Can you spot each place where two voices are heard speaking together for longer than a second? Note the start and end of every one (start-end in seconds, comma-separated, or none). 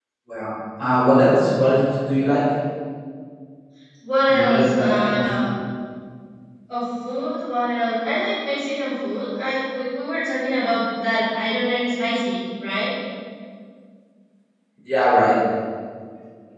4.3-5.5